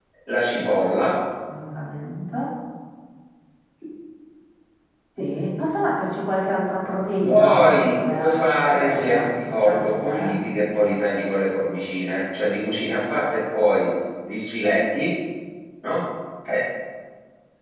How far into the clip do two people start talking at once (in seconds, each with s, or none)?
7.3 s